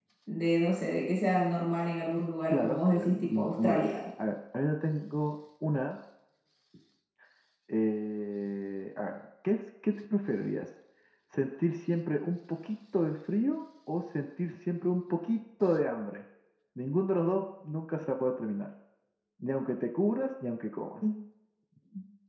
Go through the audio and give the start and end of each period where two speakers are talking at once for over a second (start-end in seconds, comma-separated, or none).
2.5-4.0